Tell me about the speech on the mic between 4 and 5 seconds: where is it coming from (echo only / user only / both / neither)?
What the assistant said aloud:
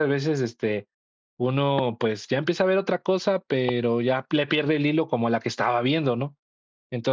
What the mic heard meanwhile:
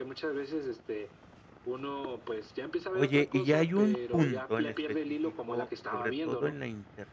both